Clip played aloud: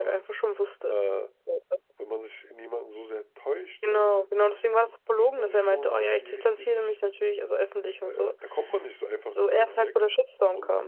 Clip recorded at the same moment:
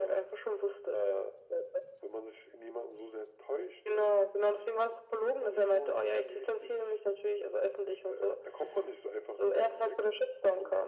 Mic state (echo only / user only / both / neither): echo only